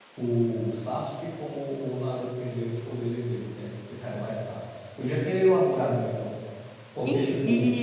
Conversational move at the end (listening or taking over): taking over